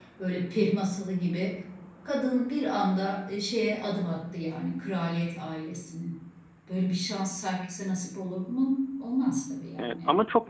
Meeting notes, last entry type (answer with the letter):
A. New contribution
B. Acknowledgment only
A